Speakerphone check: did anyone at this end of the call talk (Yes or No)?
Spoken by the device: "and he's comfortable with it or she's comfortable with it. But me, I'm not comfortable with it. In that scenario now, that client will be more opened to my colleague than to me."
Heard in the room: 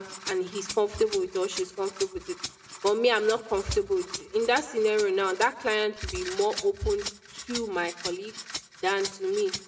No